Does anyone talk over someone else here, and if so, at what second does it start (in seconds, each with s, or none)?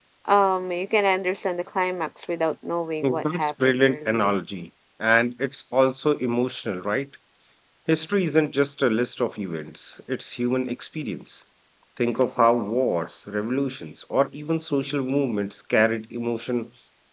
3.0 s